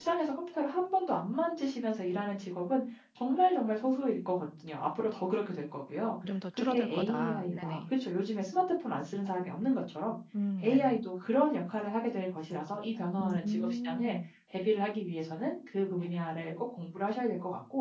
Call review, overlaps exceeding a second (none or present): present